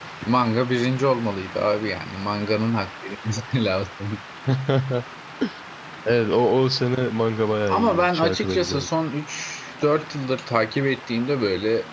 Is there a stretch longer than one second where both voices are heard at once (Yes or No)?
Yes